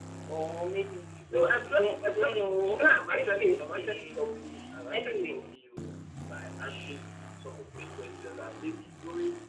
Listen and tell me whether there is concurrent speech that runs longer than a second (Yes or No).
Yes